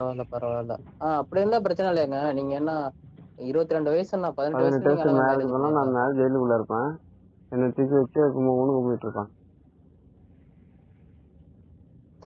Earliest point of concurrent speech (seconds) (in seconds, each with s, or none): 4.5 s